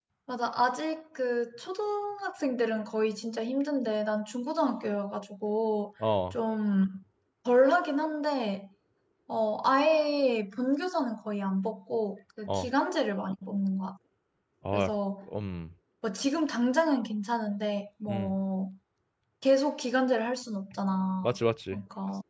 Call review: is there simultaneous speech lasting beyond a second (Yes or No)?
No